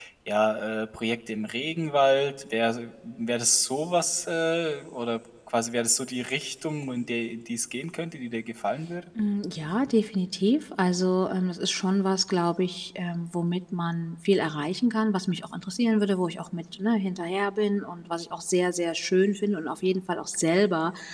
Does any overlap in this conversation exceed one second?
No

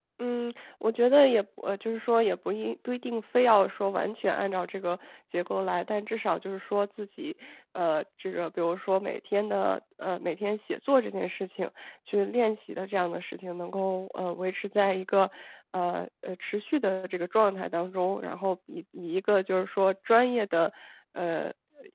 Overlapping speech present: No

